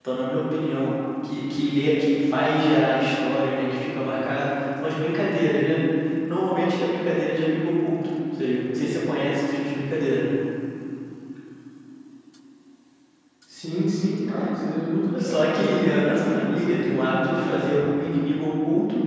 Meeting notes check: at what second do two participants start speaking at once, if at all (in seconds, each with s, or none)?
15.1 s